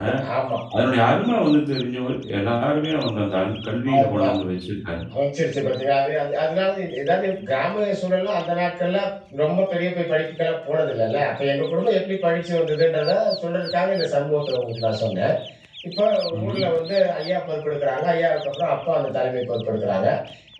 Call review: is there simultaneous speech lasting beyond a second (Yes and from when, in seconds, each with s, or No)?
No